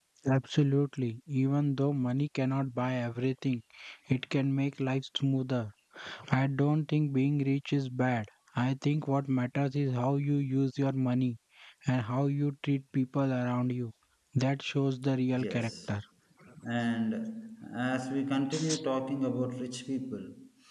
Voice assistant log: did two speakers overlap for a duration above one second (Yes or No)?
No